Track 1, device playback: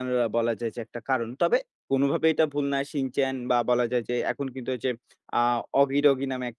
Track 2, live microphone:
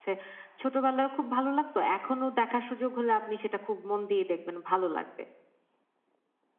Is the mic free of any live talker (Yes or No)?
No